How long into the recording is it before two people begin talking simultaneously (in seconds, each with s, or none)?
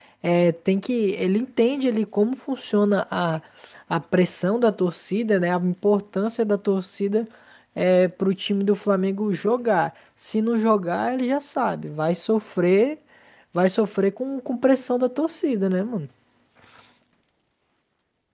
none